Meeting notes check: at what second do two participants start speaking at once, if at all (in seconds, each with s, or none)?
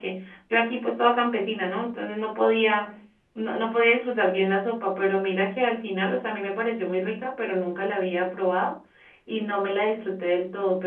none